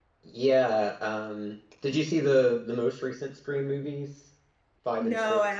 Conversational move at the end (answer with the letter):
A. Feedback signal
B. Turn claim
B